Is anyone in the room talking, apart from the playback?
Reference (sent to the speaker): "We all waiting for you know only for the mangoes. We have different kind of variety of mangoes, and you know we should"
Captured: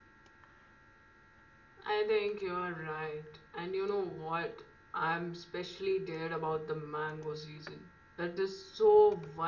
Yes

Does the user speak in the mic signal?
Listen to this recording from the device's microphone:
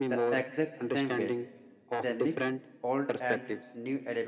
Yes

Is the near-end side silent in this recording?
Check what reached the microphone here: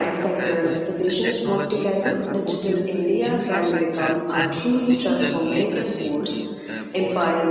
No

